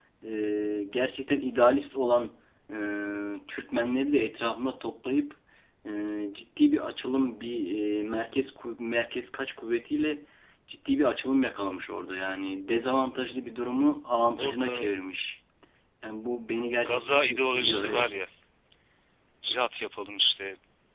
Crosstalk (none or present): present